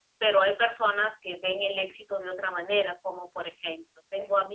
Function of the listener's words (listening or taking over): listening